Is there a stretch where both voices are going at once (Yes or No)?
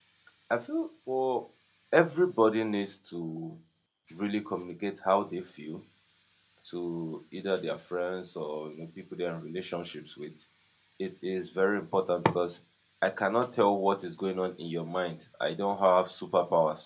No